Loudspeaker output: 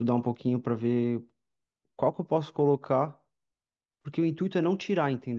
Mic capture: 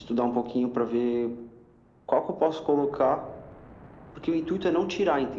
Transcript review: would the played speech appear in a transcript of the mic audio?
Yes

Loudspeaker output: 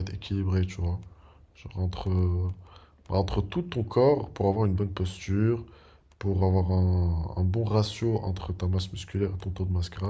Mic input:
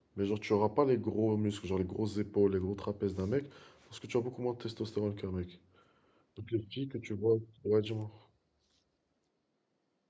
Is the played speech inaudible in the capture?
Yes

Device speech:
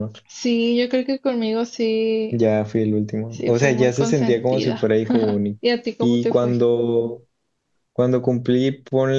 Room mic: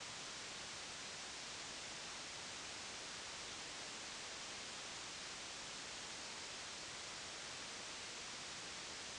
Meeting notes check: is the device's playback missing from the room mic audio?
Yes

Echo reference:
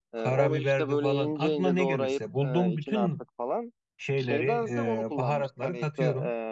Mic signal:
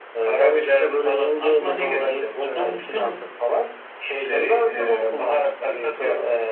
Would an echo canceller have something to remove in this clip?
Yes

